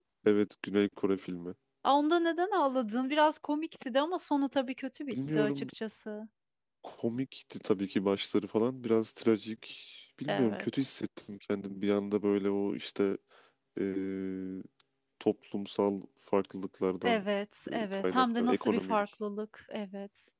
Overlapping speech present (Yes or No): Yes